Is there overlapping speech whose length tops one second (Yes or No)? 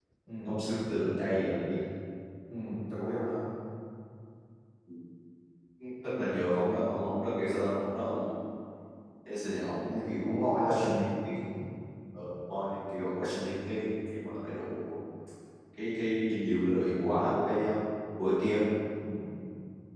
Yes